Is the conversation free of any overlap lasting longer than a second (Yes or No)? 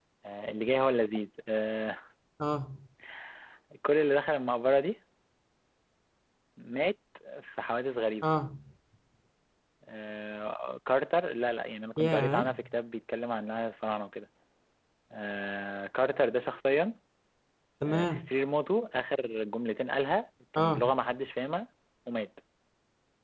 Yes